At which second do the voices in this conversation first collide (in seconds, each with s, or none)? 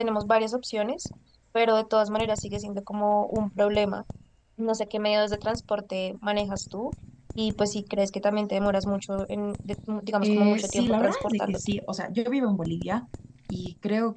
10.2 s